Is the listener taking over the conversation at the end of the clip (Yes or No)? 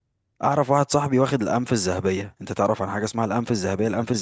No